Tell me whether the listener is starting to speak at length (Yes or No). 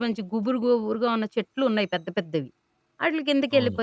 No